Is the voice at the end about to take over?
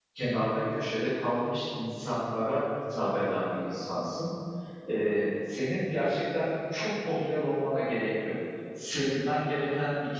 No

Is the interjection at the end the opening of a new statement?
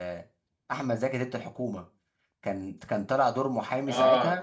Yes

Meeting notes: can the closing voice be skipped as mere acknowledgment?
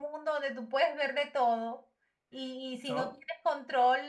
Yes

